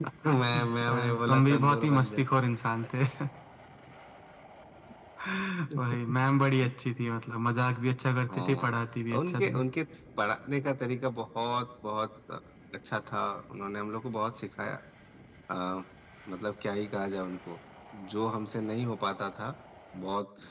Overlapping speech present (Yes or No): Yes